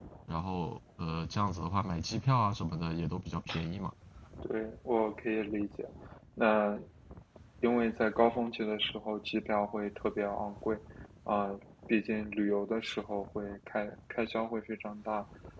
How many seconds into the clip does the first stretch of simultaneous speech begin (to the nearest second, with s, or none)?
none